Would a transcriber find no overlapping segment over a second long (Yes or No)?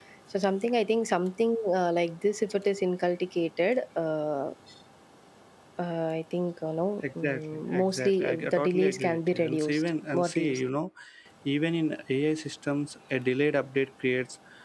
No